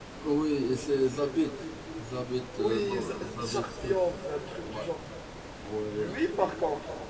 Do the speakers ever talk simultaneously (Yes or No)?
Yes